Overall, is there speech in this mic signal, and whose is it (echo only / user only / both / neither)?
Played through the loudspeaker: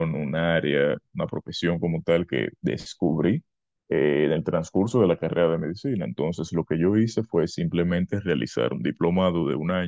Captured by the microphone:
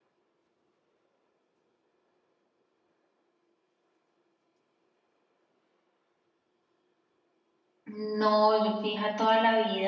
user only